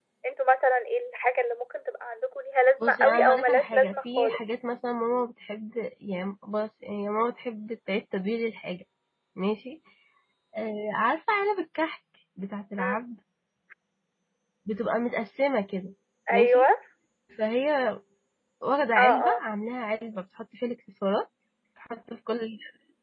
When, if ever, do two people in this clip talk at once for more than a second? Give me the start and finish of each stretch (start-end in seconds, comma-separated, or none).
2.8-4.4